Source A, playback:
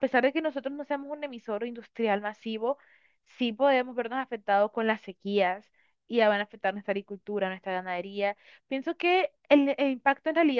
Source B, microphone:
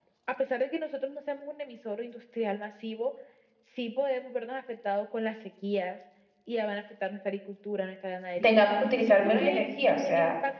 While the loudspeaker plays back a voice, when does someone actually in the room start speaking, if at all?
8.4 s

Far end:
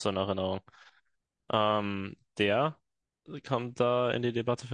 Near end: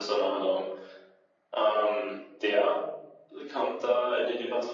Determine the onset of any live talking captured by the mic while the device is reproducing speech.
none

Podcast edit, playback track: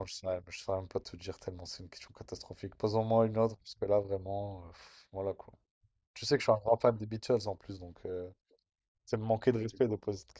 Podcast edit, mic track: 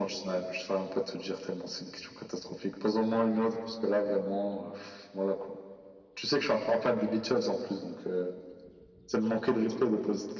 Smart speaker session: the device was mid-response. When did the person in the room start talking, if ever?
none

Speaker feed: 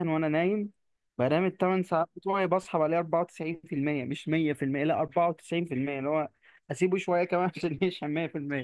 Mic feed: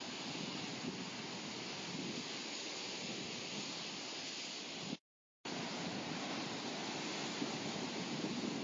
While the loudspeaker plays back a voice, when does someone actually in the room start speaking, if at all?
none

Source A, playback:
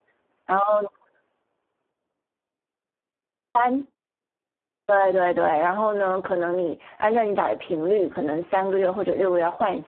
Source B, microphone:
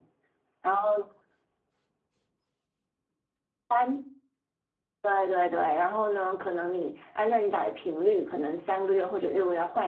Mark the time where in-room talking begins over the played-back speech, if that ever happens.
none

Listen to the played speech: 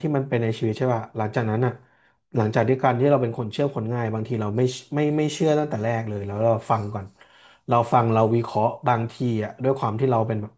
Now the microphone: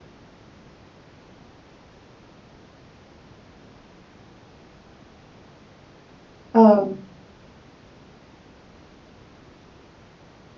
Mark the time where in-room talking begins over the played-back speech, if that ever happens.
6.5 s

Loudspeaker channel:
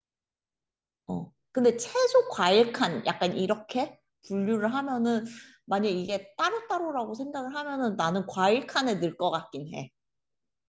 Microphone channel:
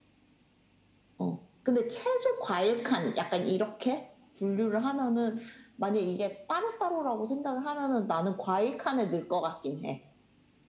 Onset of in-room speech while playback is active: none

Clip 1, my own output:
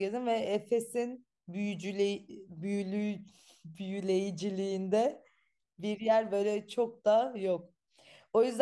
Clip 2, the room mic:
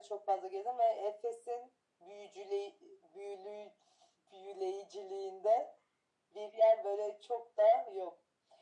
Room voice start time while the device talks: none

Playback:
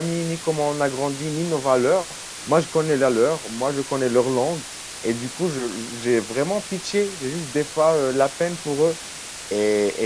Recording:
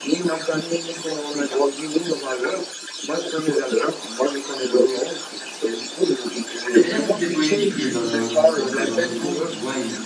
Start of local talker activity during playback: 6.7 s

